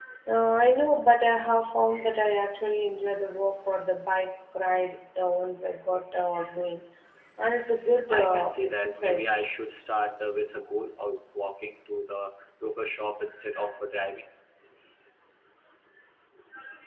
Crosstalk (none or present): present